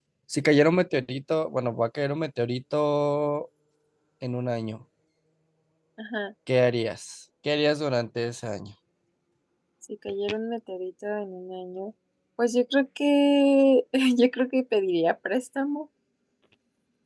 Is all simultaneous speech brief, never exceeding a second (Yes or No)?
Yes